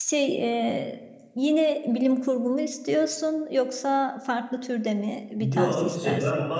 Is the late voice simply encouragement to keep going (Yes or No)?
No